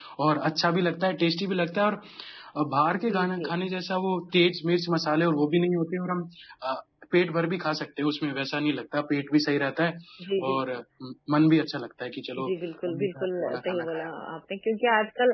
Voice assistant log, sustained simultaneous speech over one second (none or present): present